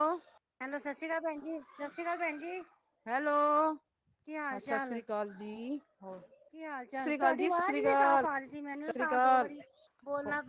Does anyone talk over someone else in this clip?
Yes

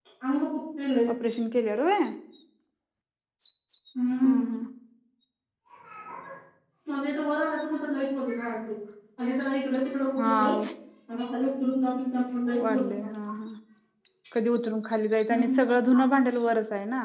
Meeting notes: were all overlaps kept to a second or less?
Yes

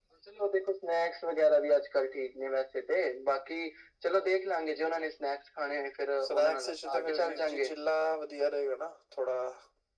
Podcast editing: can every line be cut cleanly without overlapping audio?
No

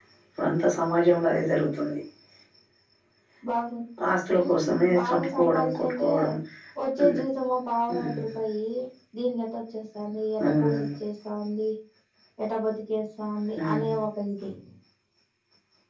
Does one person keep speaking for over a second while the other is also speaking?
Yes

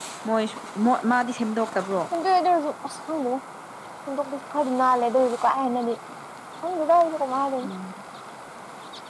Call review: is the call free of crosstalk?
Yes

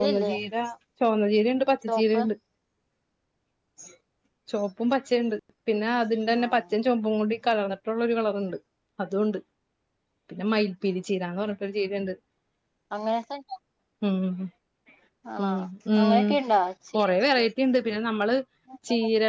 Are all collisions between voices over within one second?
Yes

